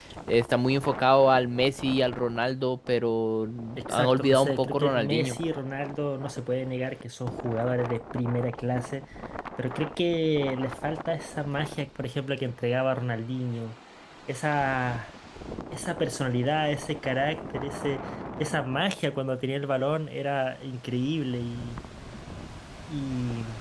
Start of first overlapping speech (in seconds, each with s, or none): 3.8 s